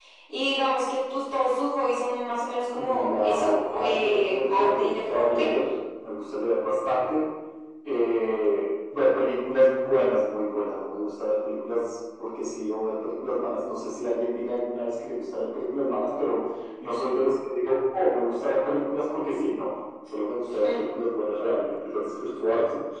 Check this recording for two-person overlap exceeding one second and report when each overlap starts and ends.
2.7-5.6

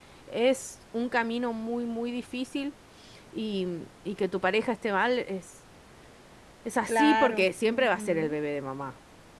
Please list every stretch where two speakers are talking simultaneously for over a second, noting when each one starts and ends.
6.9-8.4

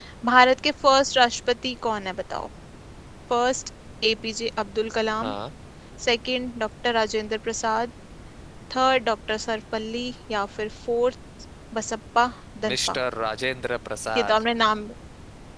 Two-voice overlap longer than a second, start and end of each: none

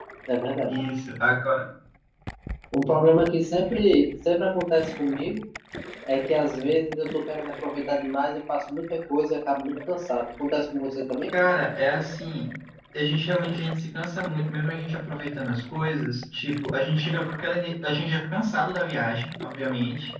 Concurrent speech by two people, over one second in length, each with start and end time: none

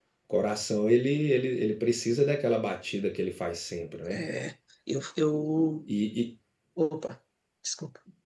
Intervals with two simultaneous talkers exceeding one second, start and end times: none

